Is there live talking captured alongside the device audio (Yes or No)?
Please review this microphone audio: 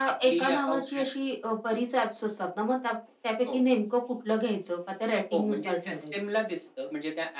No